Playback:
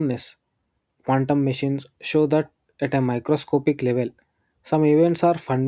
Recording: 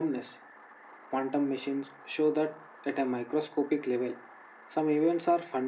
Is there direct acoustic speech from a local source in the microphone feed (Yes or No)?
No